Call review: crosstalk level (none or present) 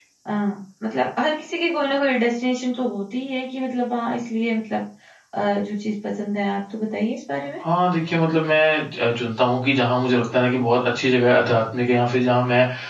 none